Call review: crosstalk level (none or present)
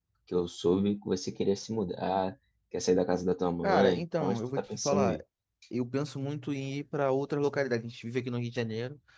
present